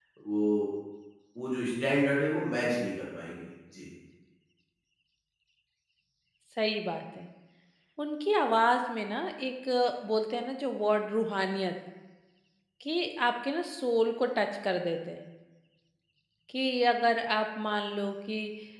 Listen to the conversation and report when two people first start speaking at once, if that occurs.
none

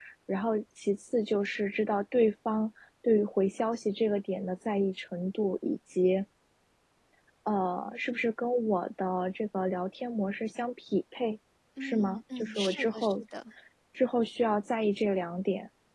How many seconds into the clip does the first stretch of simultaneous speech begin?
11.8 s

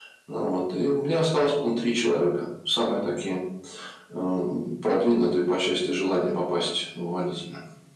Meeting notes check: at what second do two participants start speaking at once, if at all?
none

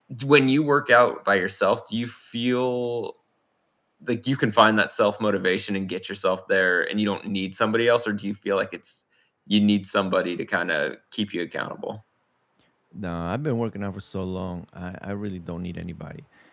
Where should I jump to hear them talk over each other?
none

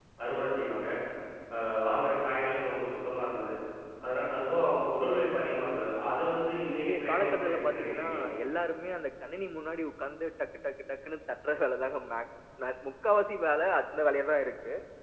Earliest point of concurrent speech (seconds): 6.7 s

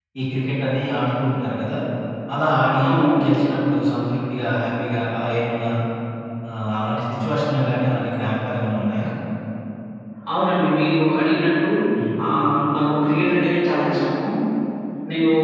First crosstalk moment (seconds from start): none

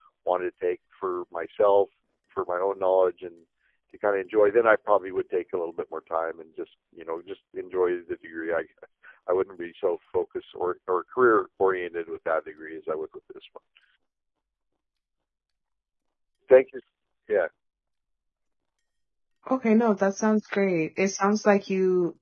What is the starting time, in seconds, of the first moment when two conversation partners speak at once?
none

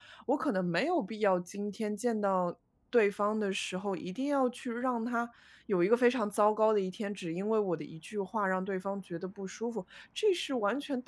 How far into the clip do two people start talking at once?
none

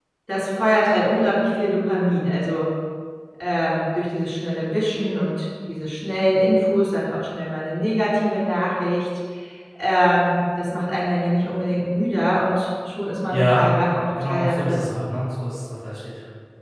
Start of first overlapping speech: 13.3 s

